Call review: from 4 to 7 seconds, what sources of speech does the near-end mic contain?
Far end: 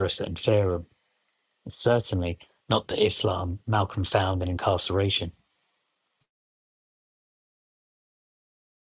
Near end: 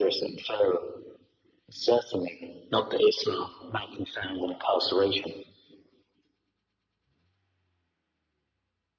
echo only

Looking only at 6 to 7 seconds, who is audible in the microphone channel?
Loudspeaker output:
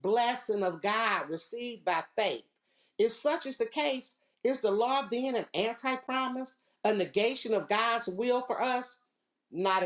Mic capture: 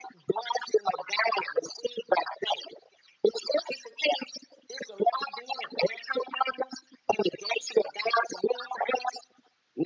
echo only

